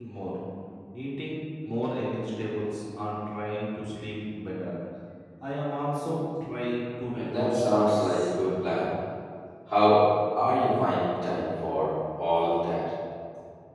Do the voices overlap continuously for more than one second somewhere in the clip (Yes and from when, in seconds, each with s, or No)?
Yes, from 7.2 s